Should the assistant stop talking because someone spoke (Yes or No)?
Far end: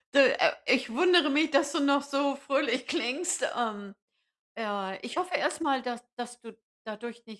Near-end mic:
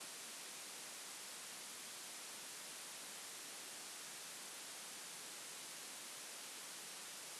No